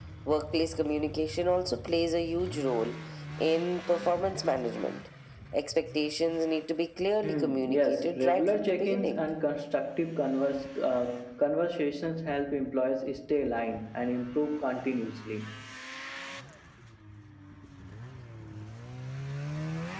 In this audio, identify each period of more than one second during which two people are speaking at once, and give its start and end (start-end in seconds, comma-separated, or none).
7.2-9.2